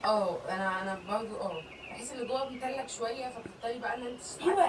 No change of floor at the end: No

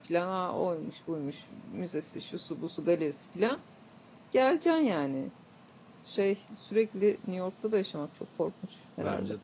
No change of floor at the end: No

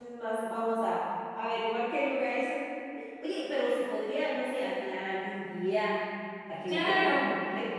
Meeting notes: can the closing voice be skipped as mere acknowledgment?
No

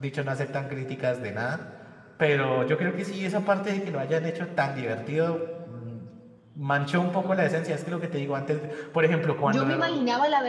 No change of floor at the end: No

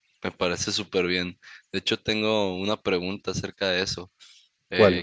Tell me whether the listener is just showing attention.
Yes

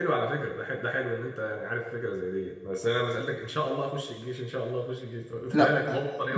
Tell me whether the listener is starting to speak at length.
Yes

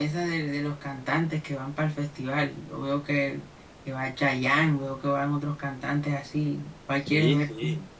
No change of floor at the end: No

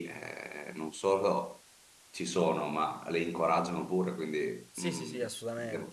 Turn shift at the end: Yes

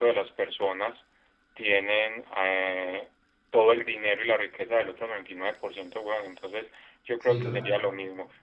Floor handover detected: No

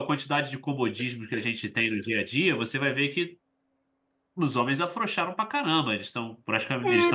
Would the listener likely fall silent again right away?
No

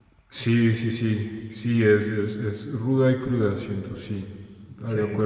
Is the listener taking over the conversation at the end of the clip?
No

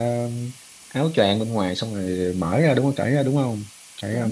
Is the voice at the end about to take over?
Yes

